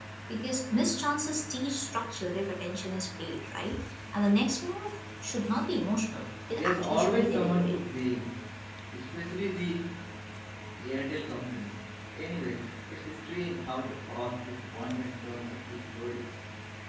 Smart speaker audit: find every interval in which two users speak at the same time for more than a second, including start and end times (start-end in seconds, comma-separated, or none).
6.5-7.8